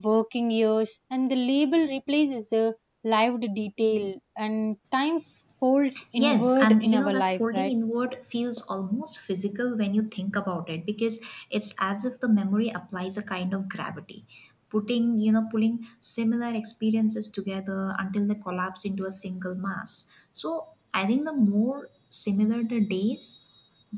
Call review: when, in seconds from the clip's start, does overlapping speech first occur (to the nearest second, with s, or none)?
6 s